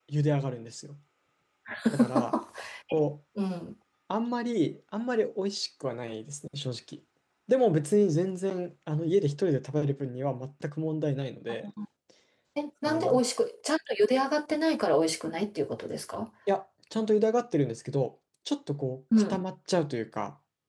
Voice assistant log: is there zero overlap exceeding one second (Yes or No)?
Yes